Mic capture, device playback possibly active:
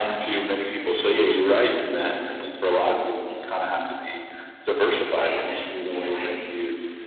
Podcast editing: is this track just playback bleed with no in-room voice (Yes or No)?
No